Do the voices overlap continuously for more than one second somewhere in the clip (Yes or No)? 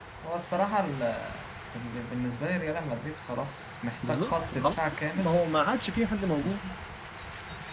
Yes